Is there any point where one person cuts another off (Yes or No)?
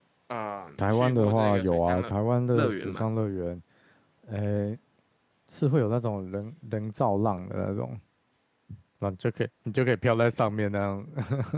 Yes